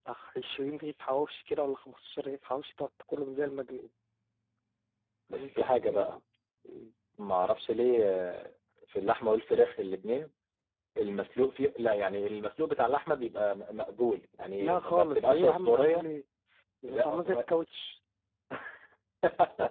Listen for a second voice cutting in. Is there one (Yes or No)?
Yes